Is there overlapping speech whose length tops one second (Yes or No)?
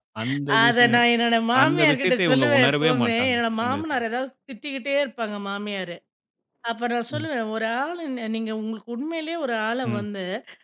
Yes